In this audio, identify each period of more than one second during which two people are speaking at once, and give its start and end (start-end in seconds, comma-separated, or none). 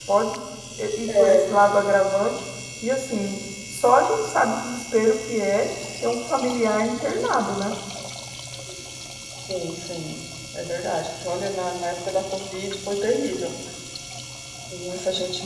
none